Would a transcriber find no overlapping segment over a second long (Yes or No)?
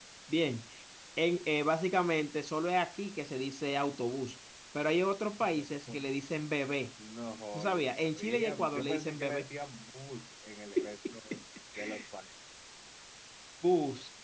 No